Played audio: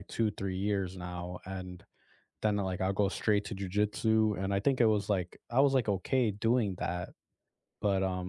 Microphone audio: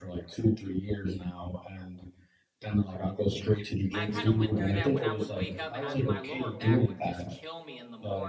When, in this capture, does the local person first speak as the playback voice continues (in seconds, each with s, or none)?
3.9 s